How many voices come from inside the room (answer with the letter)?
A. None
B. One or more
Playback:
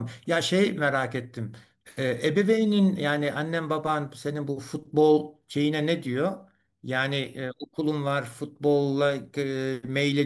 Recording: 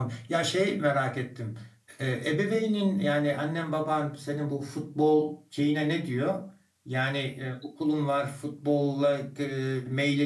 A